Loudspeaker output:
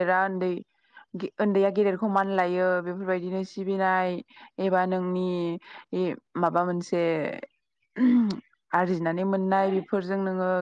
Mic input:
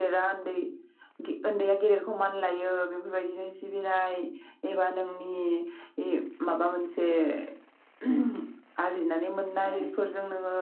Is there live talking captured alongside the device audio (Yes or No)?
No